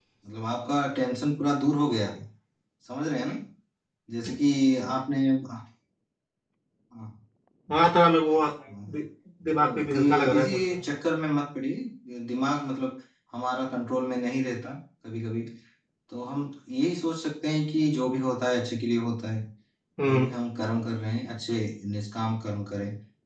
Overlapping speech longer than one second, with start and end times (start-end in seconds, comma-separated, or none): 9.6-10.8